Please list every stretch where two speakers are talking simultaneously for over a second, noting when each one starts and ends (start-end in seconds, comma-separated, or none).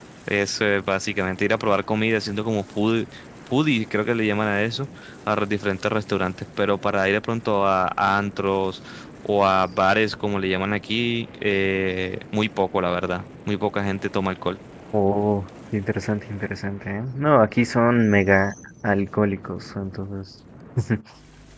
none